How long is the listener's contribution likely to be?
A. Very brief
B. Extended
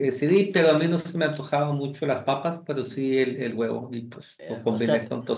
B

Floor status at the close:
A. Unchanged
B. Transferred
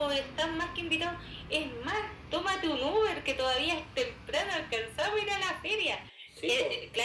A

